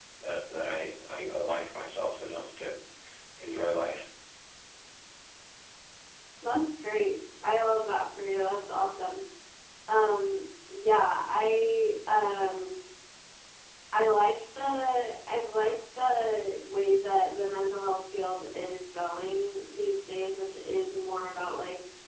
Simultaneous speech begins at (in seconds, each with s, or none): none